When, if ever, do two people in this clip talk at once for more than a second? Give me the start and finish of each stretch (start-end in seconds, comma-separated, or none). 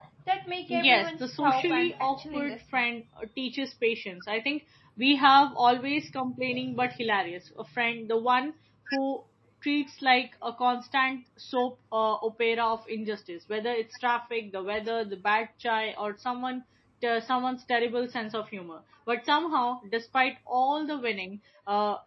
0.7-2.8